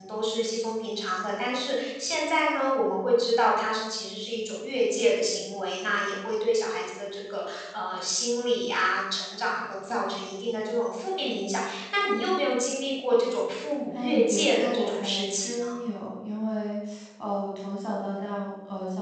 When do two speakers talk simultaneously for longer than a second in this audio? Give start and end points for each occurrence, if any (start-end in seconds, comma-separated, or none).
13.9-15.8